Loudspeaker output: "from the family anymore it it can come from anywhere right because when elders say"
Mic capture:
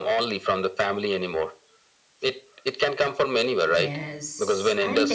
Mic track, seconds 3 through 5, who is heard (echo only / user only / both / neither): both